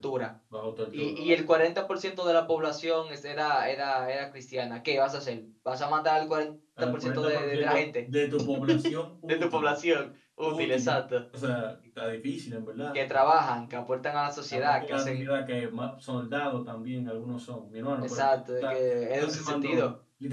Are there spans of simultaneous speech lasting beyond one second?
Yes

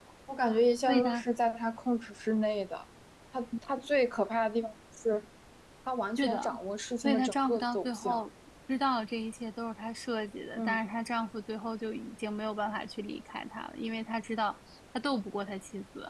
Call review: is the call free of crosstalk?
No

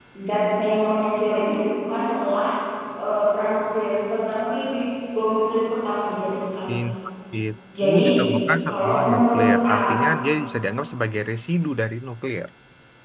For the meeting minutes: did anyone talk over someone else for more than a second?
Yes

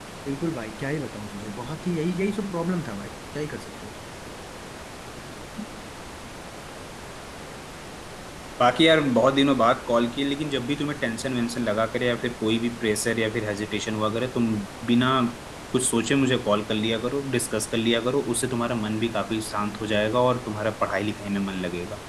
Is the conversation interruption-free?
Yes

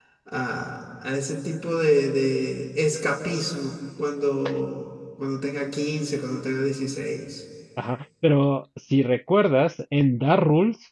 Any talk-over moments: No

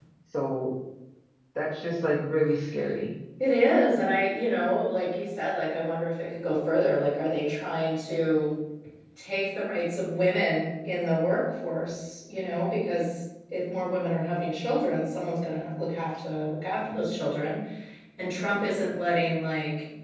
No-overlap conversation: Yes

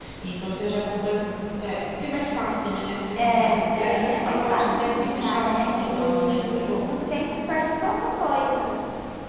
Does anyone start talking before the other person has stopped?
Yes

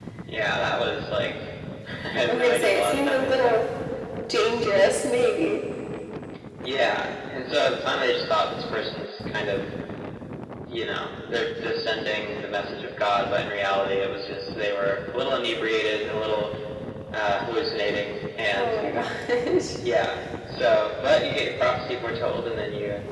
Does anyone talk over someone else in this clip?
Yes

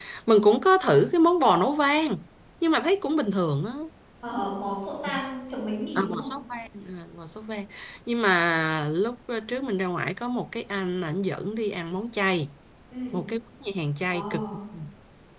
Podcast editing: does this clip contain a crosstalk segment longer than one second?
No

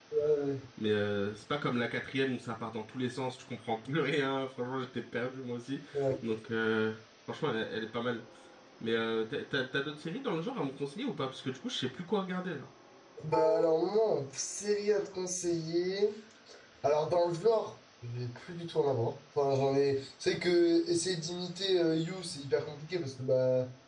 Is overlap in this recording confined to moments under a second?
Yes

